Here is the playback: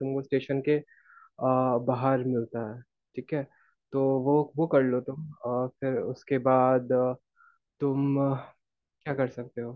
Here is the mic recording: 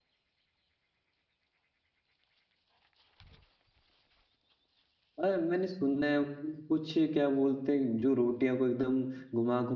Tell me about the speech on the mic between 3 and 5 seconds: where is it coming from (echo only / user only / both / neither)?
neither